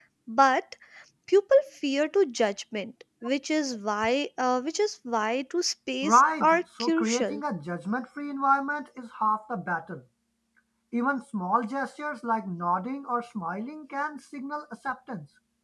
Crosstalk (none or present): present